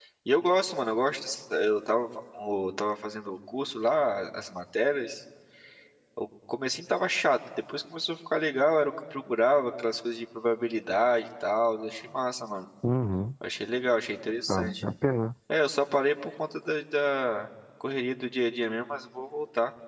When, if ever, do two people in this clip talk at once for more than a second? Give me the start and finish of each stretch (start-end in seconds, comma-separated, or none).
none